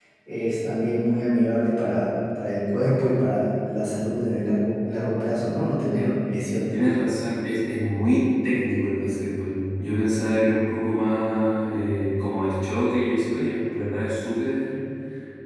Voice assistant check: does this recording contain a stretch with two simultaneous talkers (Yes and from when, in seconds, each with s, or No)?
No